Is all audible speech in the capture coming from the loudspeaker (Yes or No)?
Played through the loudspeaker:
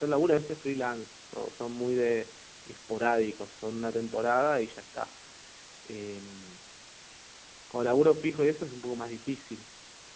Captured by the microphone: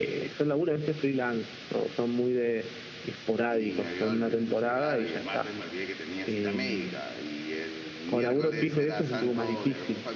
No